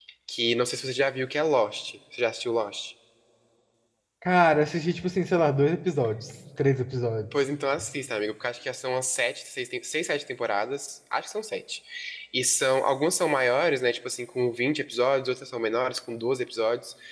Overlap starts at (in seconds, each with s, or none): none